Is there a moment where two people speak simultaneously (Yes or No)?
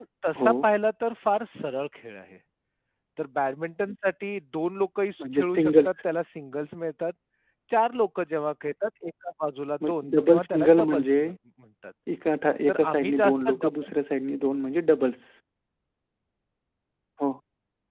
Yes